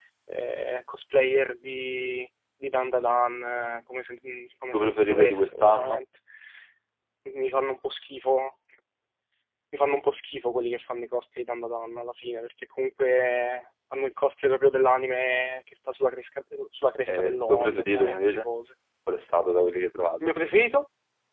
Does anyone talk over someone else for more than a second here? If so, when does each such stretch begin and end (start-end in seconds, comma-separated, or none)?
4.7-6.0, 17.1-18.4